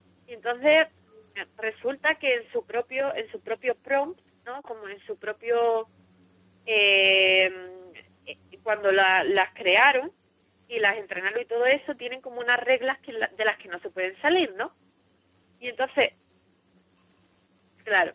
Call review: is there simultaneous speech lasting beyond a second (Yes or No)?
No